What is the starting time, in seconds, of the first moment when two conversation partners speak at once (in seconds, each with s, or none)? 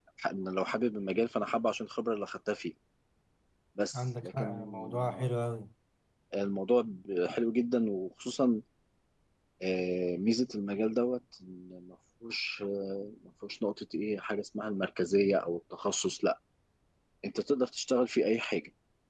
3.9 s